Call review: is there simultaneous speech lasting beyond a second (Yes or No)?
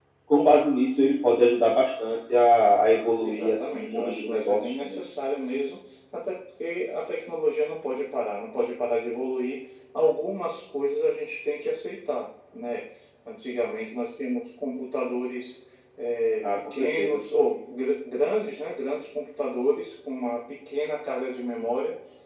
Yes